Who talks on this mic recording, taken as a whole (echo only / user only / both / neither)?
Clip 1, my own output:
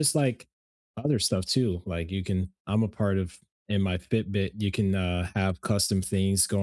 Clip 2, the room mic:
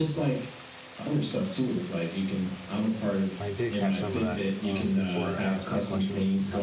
both